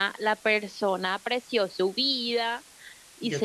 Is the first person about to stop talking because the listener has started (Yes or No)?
No